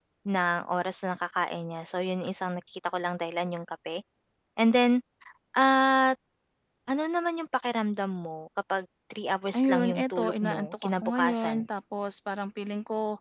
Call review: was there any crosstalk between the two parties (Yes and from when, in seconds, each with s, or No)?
Yes, from 9.5 s